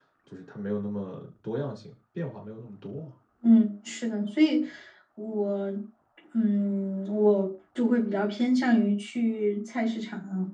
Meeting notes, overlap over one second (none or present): none